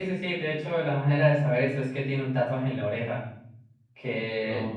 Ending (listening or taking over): listening